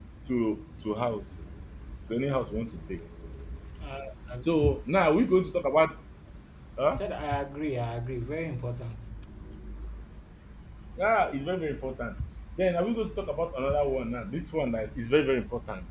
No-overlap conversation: Yes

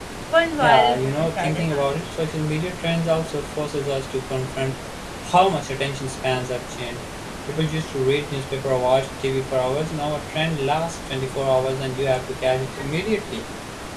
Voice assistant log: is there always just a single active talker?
No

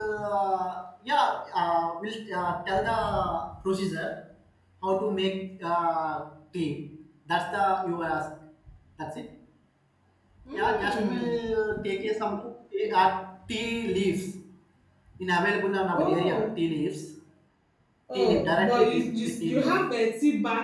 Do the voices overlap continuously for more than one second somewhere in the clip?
Yes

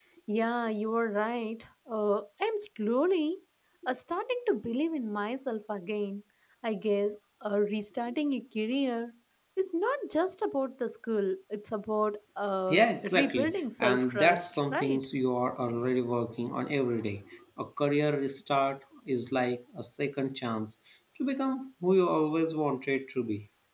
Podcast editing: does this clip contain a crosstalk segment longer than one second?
Yes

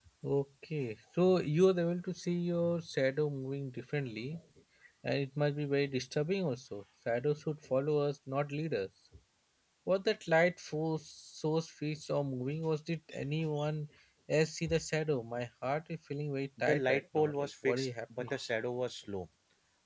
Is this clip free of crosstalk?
No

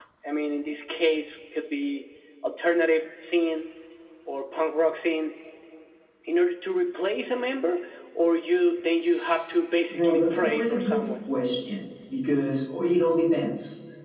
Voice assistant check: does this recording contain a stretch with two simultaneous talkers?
Yes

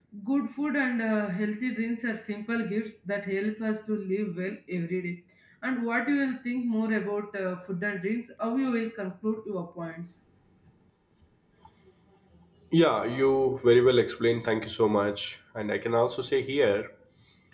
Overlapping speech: No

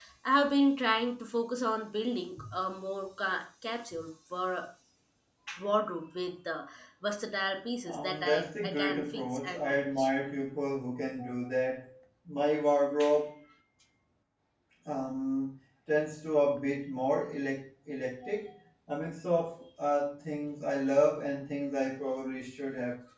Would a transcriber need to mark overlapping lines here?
Yes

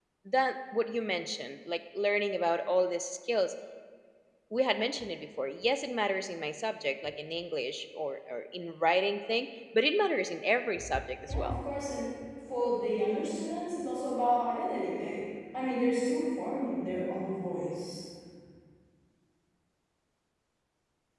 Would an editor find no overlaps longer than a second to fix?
Yes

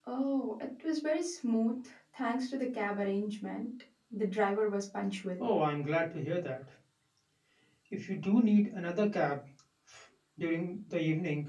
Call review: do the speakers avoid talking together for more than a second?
Yes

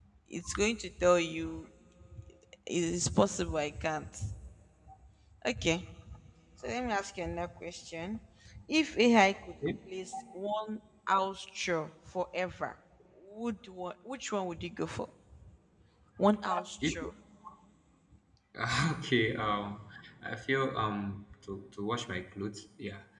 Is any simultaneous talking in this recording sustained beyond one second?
No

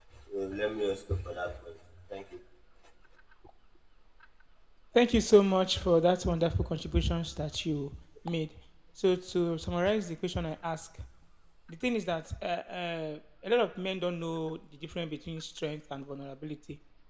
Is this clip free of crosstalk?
Yes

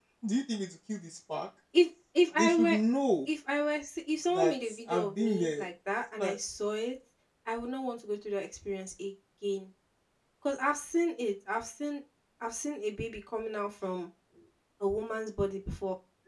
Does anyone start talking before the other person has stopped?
Yes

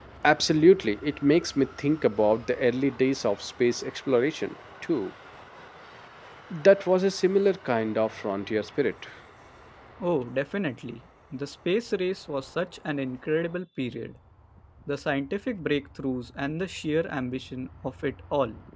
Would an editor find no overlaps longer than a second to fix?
Yes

